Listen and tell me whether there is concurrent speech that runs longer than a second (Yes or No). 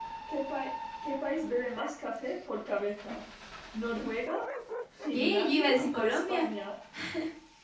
Yes